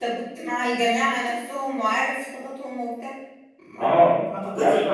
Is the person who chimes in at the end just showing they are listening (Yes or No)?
No